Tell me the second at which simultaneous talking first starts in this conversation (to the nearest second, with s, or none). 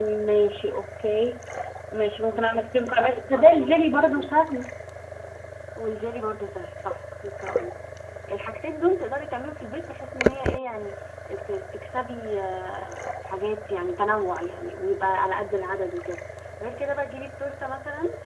2 s